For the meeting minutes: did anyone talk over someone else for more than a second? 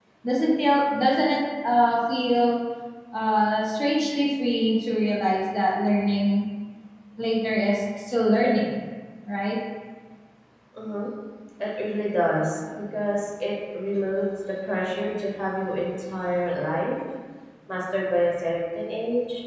No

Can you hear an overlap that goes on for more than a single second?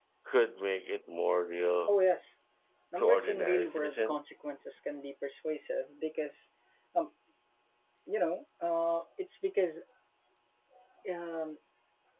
Yes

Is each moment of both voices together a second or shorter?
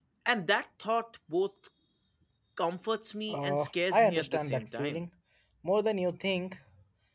No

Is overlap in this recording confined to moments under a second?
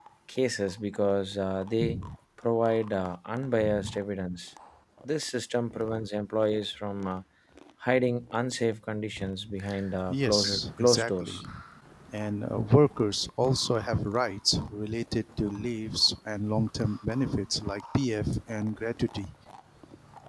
No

